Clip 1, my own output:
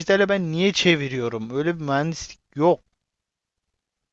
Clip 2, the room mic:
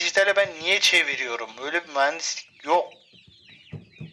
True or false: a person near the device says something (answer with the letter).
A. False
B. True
A